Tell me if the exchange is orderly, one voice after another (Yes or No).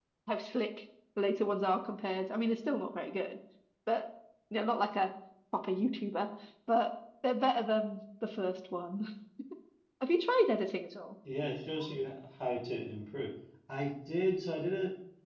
Yes